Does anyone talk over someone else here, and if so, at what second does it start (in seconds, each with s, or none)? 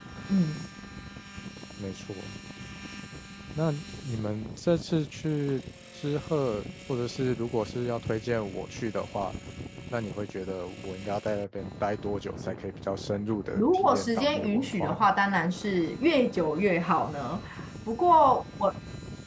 13.5 s